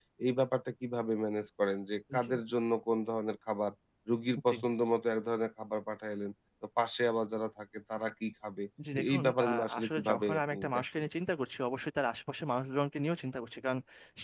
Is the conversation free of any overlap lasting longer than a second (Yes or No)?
No